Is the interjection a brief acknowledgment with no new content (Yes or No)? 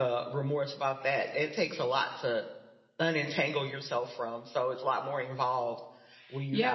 No